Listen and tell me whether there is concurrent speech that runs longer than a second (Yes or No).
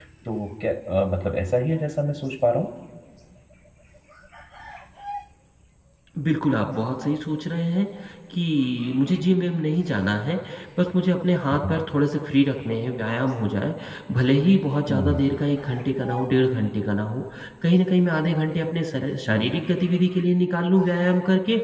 No